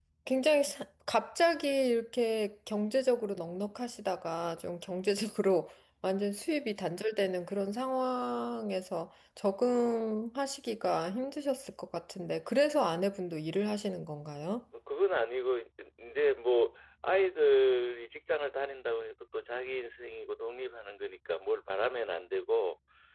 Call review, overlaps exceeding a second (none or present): none